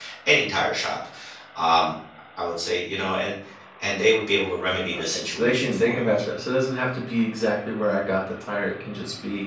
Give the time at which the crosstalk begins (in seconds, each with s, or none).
4.9 s